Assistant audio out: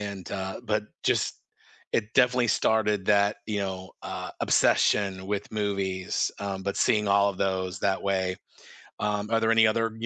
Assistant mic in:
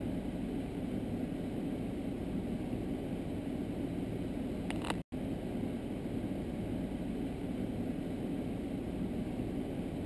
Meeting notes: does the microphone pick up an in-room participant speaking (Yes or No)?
No